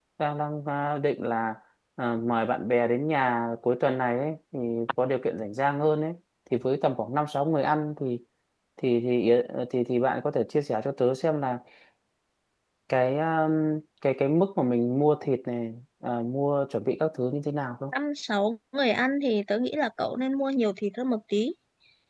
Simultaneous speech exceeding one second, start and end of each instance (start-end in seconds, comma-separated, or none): none